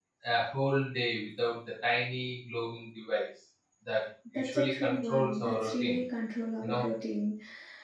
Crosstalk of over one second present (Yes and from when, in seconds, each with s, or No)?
Yes, from 4.3 s